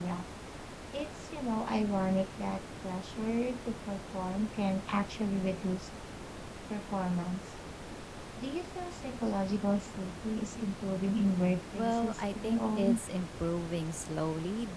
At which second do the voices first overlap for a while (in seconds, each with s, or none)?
11.8 s